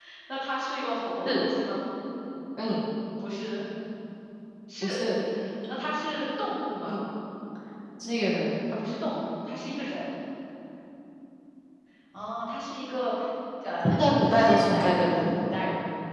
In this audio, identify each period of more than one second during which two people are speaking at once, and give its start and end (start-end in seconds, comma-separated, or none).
13.9-15.3